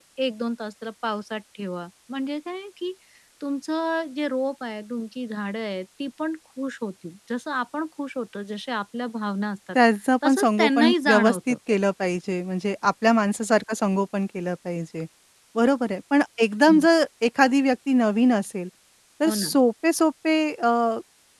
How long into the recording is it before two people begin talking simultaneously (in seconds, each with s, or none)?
10.2 s